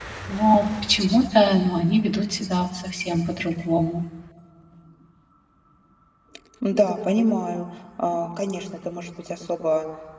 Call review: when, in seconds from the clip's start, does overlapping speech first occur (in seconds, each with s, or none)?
none